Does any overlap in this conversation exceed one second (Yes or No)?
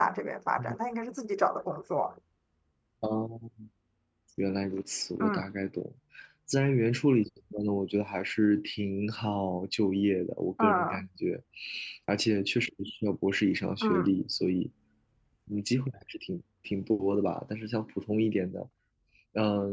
No